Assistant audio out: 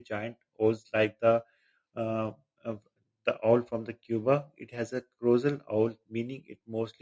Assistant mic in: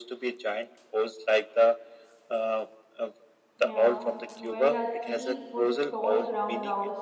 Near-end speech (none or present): present